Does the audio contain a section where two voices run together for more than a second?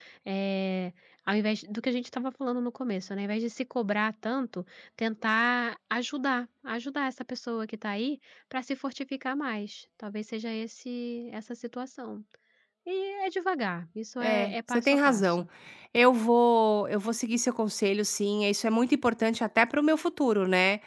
Yes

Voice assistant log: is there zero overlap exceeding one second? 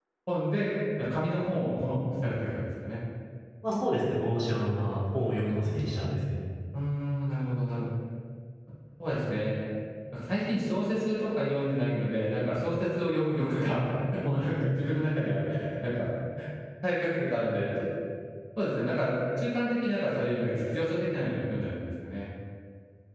Yes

